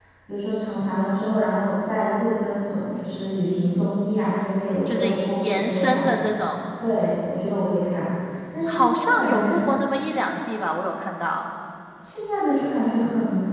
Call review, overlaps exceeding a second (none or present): present